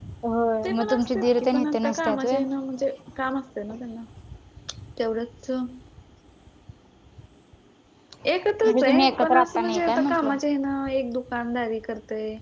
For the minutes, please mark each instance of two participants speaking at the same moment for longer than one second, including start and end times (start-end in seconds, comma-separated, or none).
0.6-2.4, 8.6-10.4